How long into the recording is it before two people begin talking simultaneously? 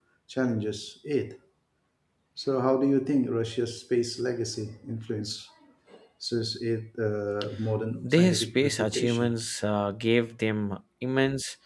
8 s

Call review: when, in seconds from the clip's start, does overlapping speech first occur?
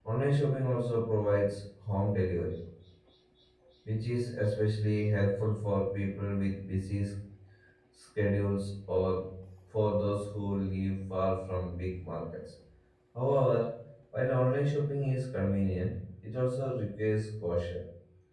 none

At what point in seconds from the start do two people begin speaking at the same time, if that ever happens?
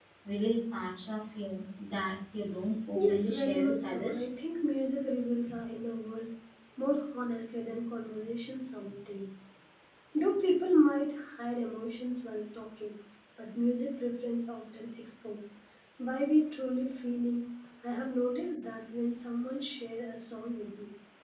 3 s

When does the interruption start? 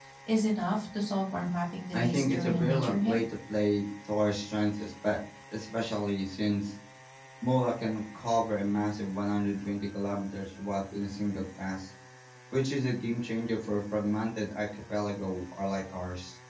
2 s

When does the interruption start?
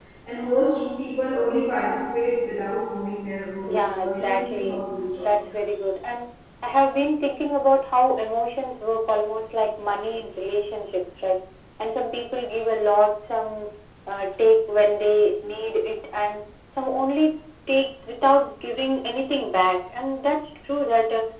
4 s

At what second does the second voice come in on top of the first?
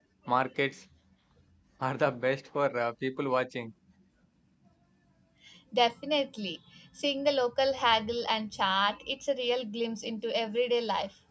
none

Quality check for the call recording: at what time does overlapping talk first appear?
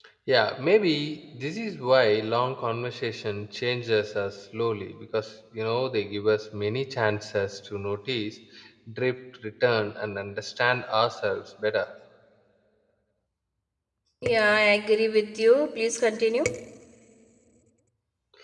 none

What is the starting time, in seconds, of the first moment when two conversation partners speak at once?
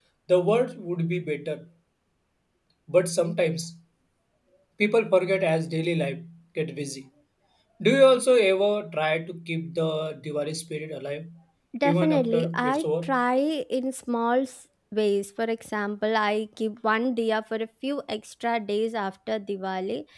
12 s

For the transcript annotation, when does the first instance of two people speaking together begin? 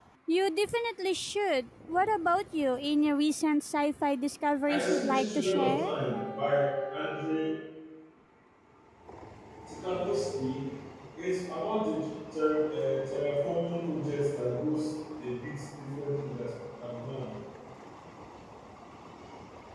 5 s

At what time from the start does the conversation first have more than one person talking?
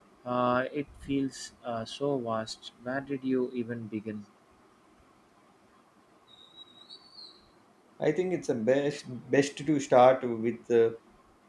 none

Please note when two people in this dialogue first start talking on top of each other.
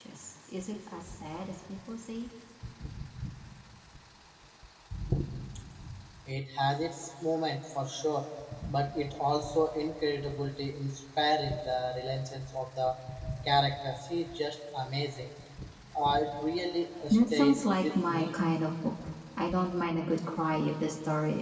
17 s

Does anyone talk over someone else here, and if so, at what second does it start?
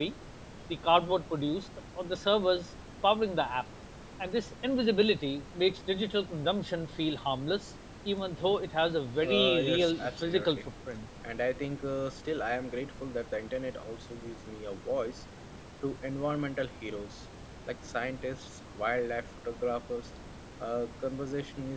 9 s

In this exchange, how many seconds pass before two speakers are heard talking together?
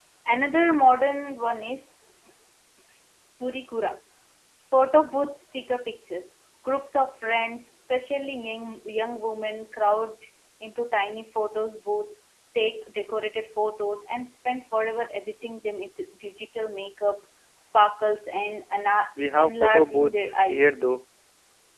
19 s

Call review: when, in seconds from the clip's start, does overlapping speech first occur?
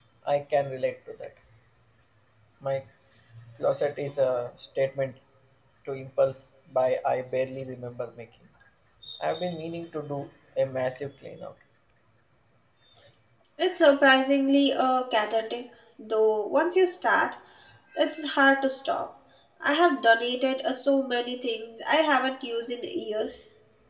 none

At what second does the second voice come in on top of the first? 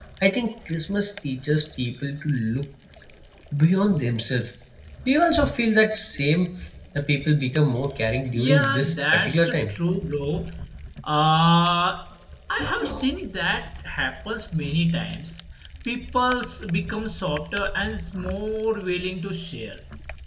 8 s

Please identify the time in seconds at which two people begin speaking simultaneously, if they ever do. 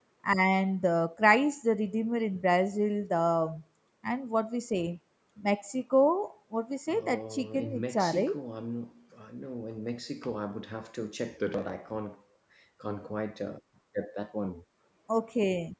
7 s

